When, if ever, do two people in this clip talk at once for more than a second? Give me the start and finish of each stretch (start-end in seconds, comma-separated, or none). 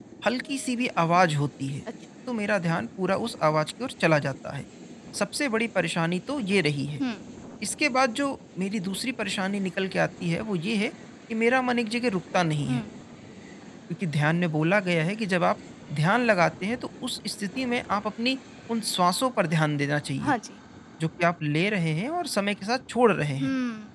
none